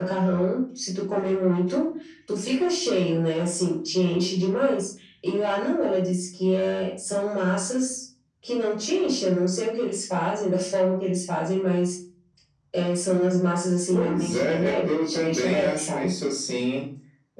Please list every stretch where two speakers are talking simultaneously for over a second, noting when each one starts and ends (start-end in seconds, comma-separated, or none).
13.9-16.1